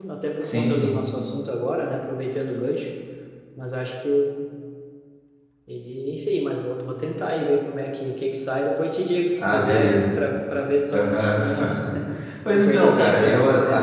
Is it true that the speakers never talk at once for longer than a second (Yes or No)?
No